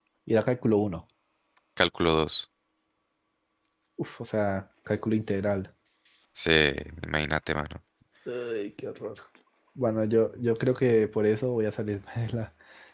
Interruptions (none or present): none